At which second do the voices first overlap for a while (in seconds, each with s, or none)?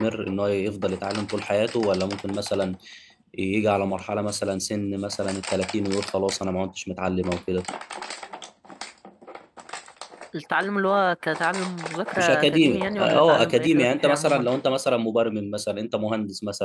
12.2 s